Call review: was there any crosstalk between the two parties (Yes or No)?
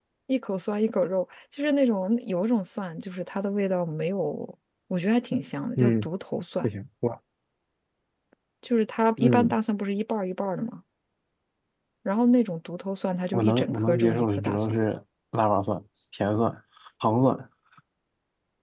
Yes